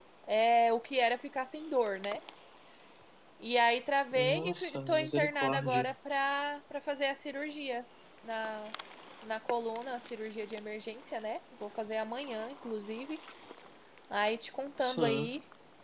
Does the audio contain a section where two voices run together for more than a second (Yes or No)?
Yes